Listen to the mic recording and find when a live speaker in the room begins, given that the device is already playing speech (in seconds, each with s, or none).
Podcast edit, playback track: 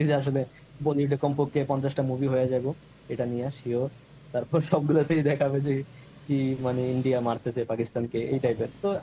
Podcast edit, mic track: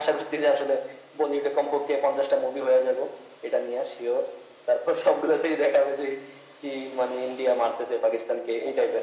none